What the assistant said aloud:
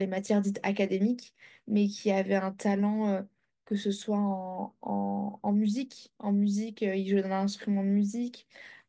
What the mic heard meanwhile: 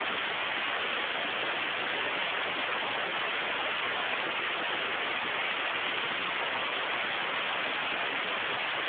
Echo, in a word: none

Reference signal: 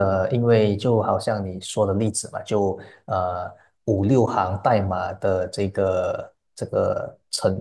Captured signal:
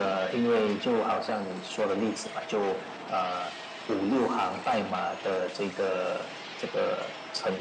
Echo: present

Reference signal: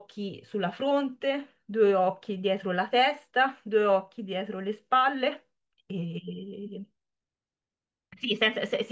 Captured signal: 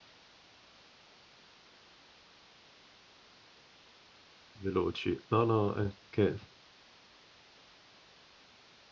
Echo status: none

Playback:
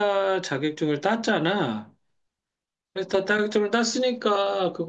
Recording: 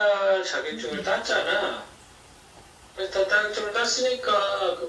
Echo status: present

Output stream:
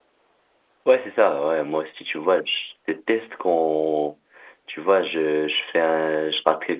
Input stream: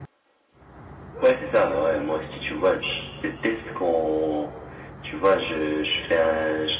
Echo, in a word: present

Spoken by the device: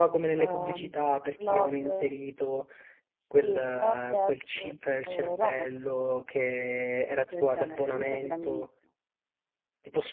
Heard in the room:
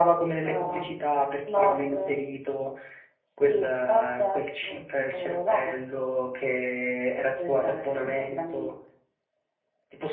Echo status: present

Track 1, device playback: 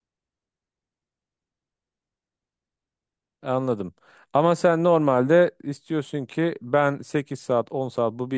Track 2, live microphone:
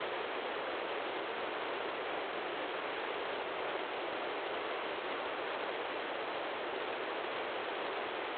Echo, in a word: none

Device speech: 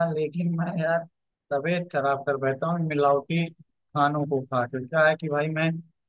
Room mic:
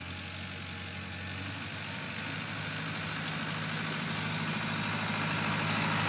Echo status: none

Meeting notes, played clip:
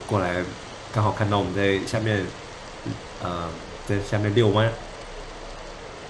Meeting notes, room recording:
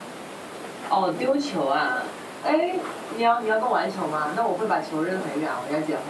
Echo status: none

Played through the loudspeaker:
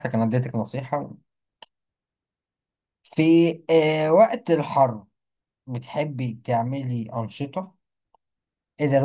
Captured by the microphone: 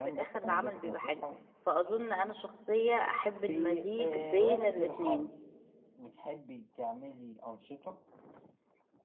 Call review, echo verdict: present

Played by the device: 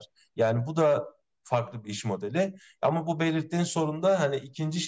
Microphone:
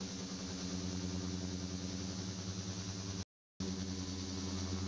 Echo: none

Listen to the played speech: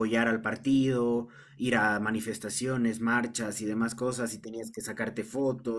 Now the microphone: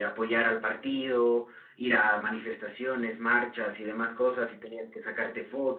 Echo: present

